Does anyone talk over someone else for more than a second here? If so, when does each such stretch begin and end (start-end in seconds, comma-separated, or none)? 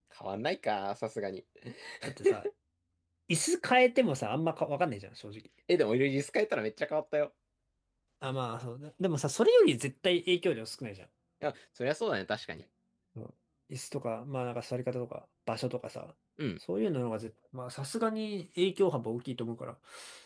none